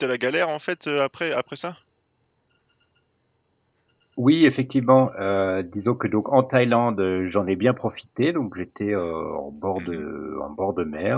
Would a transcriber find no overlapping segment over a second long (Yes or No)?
Yes